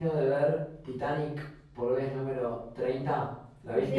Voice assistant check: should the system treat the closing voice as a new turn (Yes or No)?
Yes